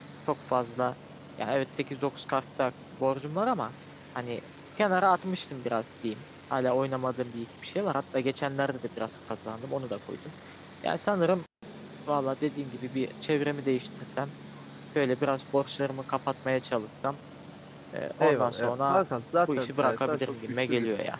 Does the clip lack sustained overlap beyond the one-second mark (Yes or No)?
No